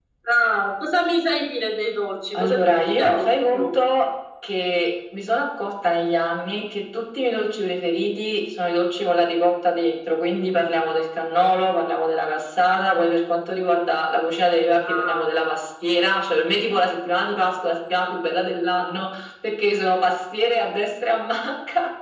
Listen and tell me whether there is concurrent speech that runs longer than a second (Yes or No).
Yes